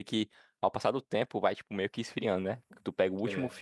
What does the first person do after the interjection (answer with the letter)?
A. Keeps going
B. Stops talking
A